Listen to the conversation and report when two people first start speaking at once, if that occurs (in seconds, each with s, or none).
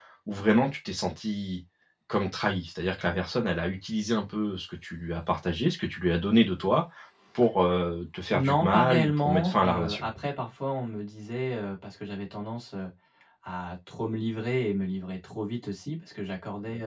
8.3 s